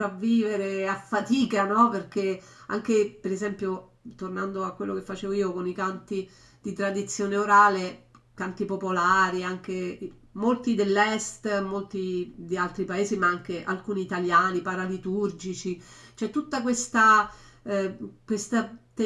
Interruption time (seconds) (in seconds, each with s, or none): none